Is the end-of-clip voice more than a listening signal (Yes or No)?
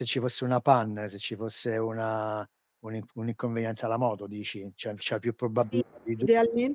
Yes